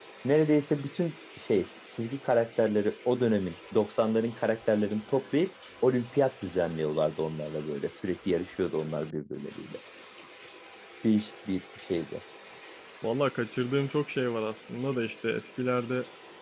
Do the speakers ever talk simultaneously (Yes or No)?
No